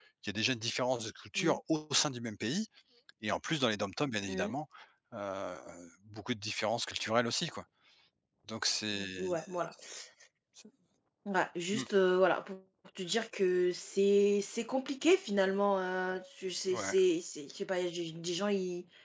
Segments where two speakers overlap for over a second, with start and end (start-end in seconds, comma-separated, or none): none